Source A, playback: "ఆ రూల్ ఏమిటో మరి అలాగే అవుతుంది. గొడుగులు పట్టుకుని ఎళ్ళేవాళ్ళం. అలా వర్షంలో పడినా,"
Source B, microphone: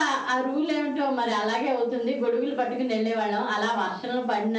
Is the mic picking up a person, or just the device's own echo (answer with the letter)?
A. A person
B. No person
B